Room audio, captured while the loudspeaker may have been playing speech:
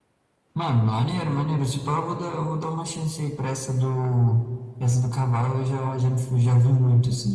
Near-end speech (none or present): none